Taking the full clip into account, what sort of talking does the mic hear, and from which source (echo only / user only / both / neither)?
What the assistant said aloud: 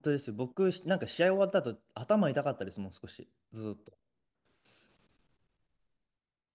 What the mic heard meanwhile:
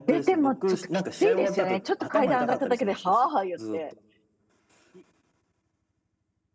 both